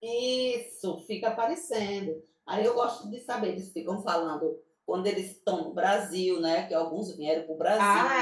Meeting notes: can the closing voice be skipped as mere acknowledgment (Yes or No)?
No